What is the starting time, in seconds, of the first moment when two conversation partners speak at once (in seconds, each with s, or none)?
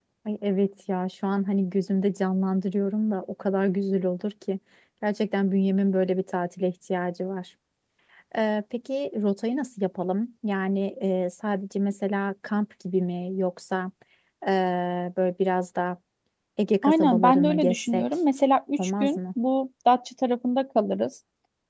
16.8 s